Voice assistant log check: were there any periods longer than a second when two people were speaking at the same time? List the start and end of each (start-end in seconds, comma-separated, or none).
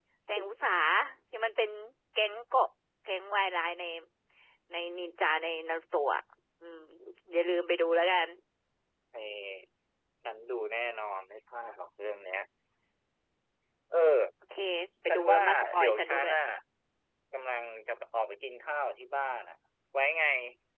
15.1-16.3